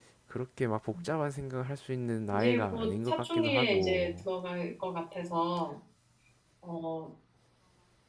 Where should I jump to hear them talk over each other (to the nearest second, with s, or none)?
2 s